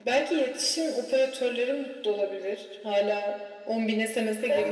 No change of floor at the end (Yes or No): No